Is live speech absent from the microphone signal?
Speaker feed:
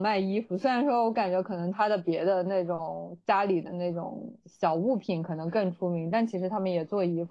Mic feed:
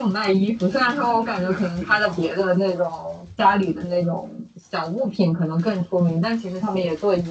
No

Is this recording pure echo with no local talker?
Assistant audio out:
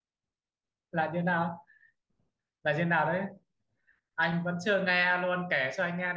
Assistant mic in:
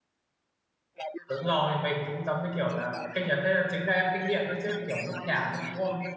No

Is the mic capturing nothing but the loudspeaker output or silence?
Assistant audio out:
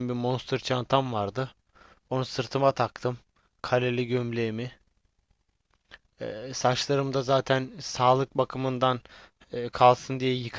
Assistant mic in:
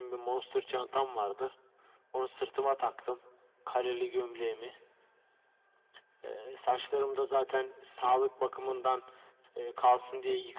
Yes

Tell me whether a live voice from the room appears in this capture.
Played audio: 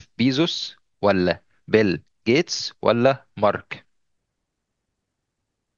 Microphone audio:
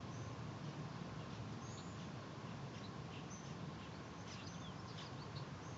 No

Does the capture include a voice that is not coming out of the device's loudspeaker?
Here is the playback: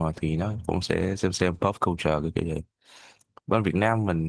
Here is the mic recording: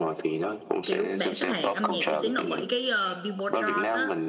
Yes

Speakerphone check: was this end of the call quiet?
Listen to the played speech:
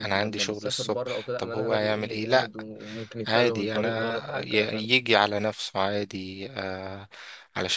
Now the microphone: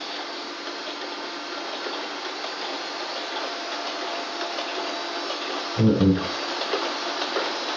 No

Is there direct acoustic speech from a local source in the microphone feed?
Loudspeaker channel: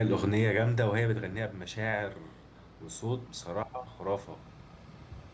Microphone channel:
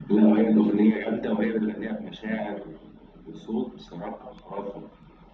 No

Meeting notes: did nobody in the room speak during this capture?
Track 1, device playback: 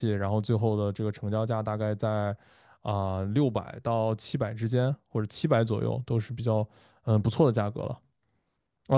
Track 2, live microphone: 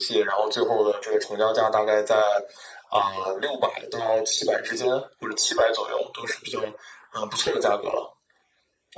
Yes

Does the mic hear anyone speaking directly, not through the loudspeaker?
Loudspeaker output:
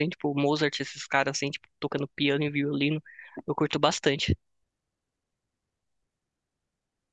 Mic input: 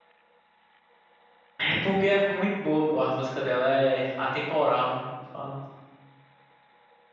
Yes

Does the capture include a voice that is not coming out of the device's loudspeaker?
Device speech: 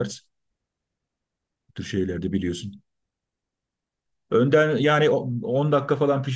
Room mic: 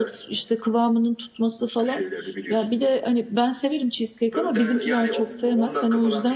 Yes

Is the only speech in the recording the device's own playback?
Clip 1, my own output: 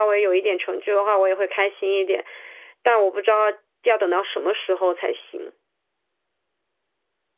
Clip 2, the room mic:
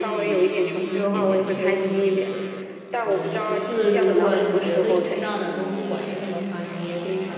No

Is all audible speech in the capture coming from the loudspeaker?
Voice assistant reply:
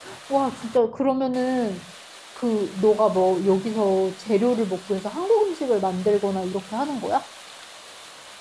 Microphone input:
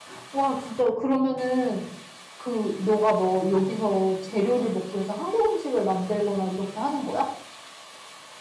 Yes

